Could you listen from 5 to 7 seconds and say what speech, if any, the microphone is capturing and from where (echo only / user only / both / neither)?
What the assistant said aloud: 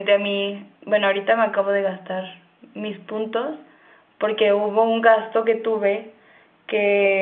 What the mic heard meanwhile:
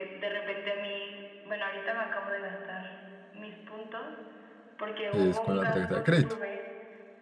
both